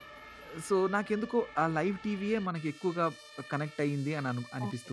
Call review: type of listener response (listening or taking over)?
taking over